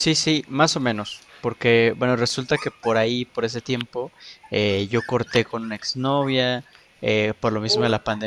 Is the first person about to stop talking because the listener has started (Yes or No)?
No